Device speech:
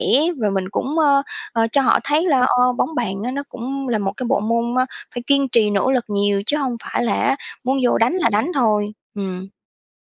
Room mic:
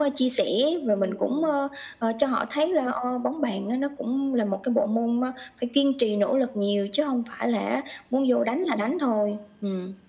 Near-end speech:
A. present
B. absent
A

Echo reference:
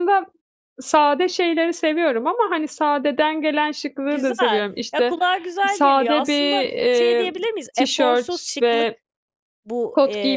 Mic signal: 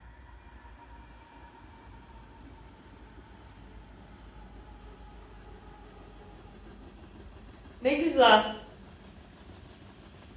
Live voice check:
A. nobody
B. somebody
B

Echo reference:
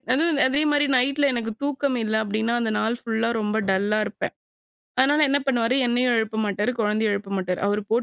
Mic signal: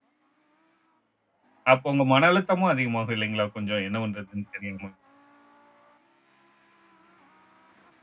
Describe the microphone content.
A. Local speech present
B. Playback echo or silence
A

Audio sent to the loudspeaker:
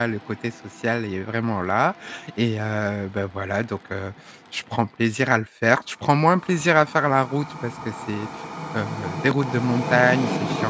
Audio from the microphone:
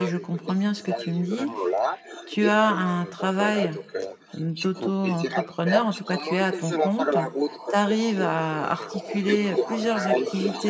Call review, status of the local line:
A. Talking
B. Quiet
A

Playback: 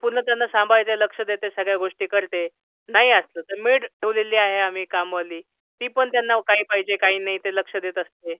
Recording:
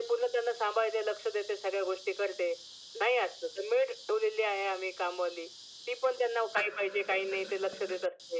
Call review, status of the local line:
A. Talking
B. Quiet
B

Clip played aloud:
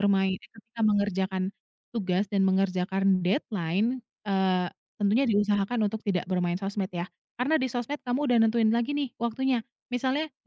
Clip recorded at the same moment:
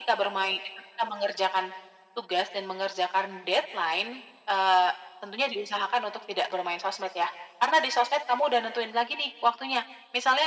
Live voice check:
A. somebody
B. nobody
B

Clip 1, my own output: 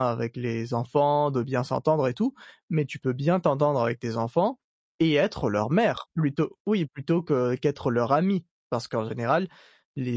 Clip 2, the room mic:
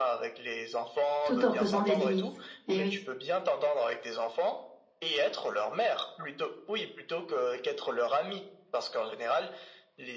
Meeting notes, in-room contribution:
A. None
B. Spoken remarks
B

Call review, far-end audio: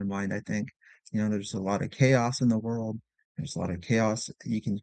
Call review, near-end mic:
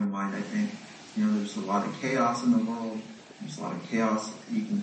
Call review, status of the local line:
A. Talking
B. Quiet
B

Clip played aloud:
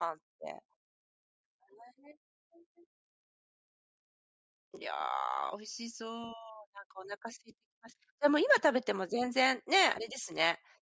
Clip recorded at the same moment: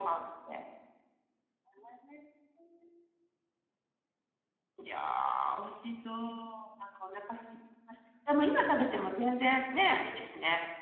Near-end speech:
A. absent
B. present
A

